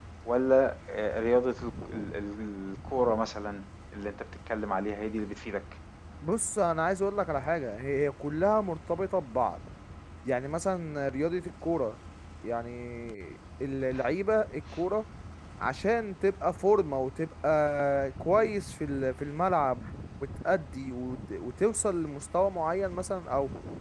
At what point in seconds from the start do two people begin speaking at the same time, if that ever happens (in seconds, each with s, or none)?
none